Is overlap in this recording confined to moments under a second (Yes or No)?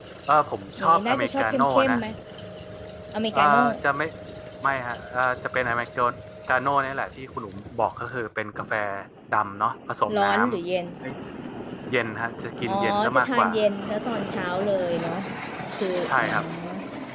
No